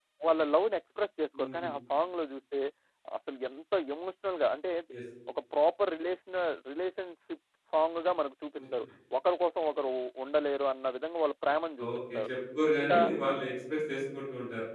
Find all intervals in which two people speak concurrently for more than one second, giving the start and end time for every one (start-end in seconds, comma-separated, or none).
none